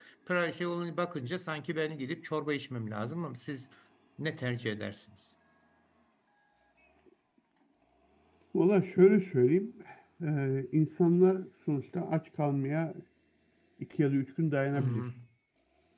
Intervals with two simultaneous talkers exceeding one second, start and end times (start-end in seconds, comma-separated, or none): none